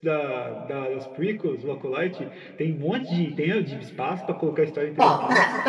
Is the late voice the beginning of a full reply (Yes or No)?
Yes